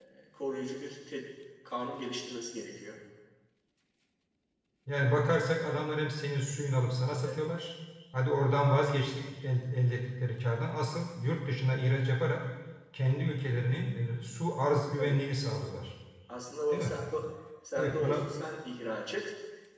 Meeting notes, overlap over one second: none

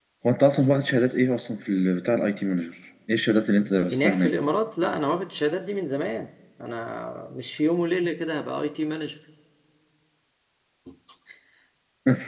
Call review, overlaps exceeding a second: none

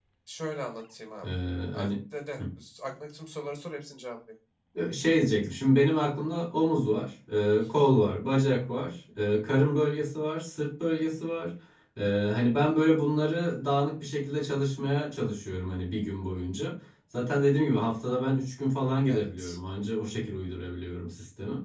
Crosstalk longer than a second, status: none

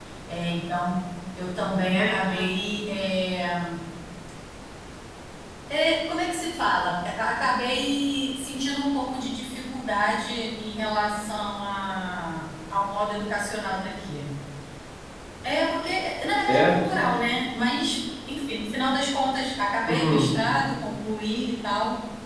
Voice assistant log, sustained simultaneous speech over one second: none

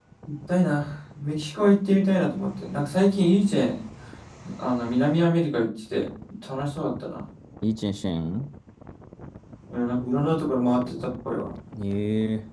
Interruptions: none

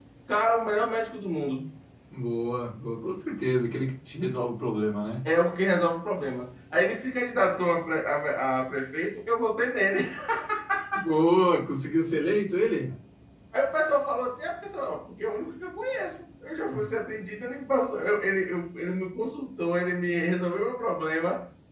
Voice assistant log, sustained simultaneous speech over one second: none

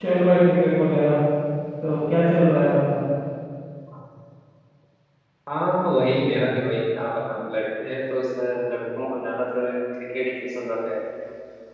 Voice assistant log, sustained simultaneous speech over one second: none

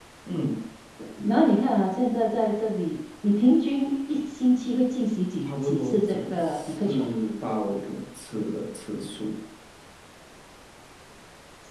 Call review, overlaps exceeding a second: present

